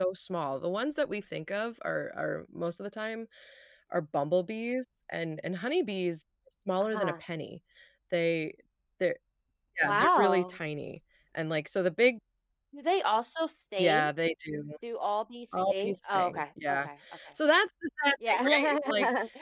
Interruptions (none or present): present